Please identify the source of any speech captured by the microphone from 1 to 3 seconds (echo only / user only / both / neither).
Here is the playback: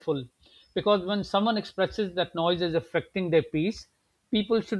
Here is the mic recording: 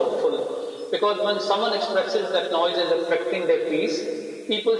echo only